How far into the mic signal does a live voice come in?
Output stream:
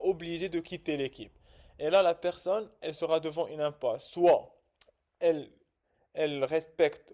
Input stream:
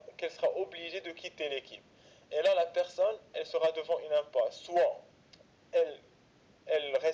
none

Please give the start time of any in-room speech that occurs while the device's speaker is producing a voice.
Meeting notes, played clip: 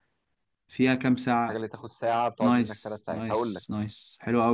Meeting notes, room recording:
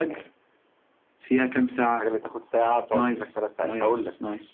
none

